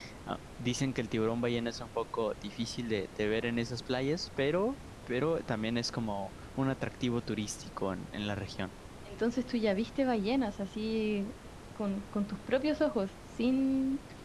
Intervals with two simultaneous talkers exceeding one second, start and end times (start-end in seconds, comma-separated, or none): none